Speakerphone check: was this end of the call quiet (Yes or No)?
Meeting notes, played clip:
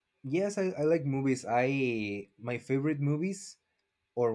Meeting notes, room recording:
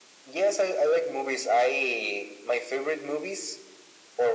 Yes